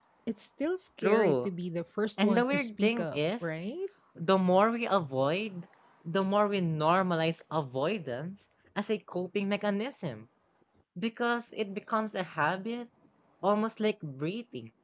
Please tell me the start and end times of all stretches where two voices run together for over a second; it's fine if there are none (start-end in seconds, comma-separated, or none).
2.2-3.6